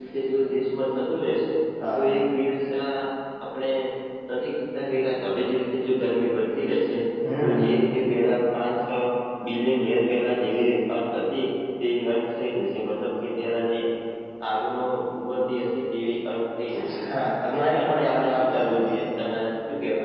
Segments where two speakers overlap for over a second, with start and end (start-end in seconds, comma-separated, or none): 17.5-19.1